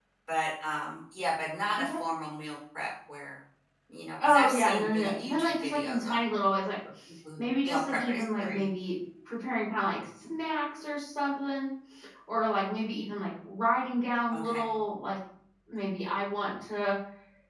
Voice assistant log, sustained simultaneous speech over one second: present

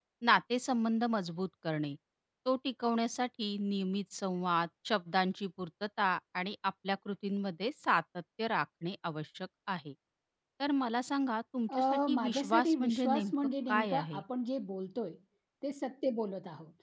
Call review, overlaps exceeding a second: present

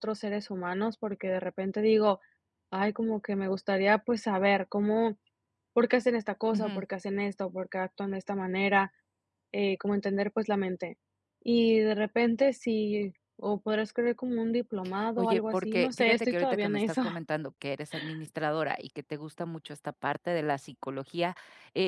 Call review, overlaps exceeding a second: present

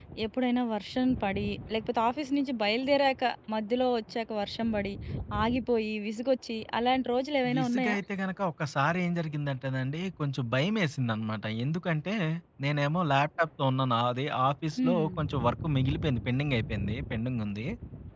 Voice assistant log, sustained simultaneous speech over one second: none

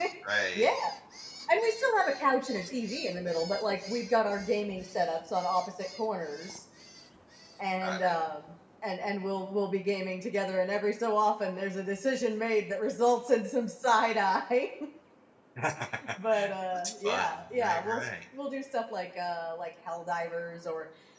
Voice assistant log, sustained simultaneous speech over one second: present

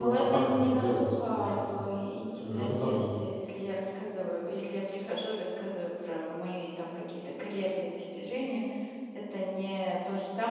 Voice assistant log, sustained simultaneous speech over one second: present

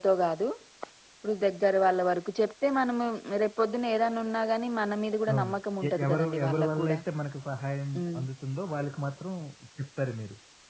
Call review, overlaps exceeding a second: present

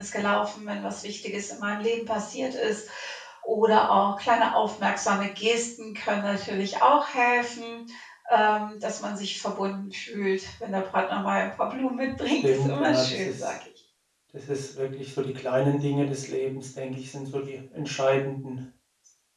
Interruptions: present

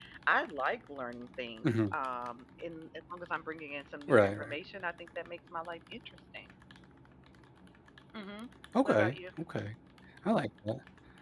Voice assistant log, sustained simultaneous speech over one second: none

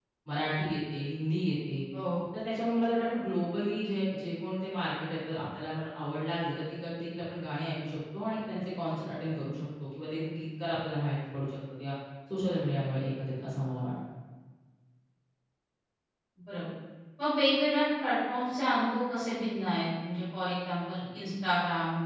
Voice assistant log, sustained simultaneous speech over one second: none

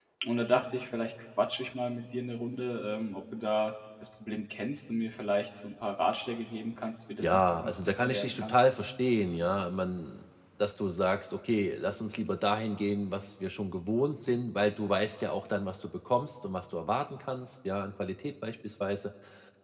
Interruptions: present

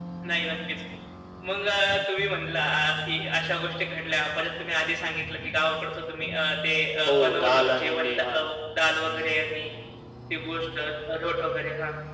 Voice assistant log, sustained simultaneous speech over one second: present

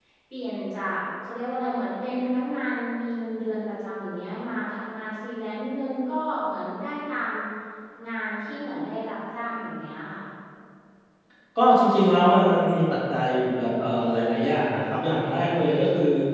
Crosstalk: none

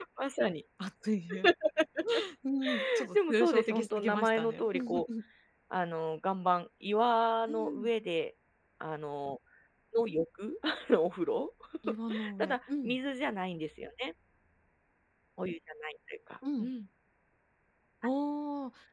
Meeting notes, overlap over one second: present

